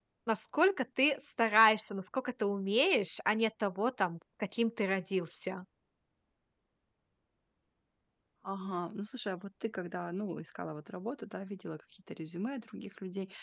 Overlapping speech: No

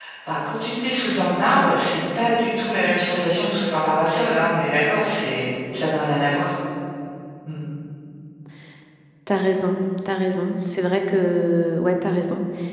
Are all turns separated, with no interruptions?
Yes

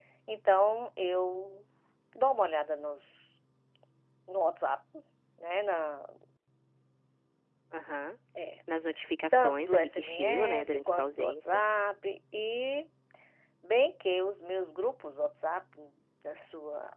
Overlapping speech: Yes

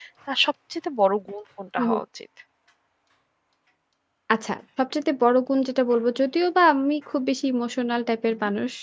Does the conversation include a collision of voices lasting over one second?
No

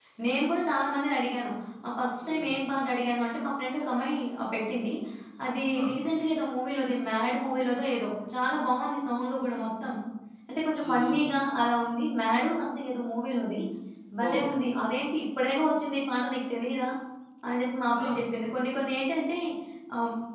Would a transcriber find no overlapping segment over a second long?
Yes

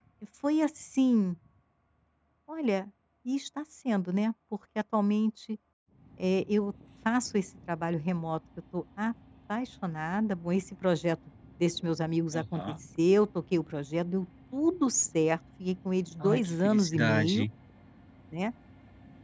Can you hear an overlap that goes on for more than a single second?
Yes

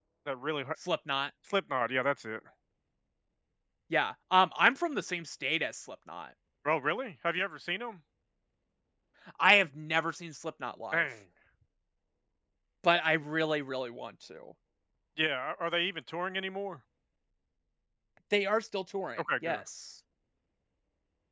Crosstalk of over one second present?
No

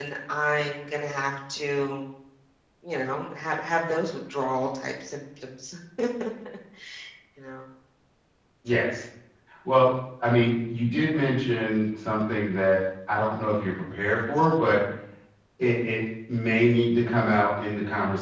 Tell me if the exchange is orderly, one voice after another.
Yes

